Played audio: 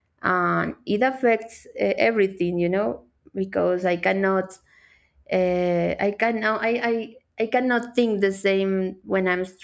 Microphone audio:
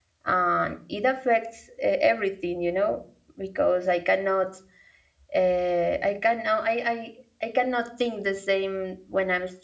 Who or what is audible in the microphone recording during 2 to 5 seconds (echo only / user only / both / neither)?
echo only